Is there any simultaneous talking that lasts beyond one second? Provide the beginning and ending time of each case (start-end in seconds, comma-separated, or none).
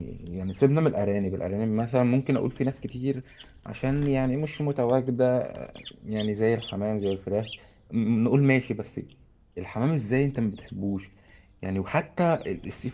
none